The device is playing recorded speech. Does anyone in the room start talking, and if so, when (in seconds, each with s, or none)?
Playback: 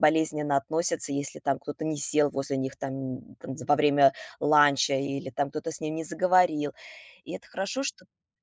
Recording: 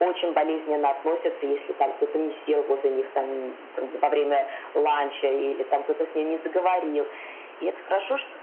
none